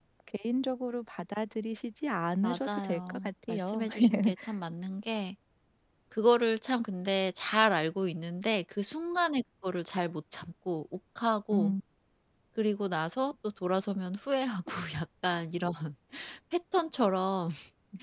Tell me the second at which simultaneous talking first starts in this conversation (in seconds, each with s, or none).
2.4 s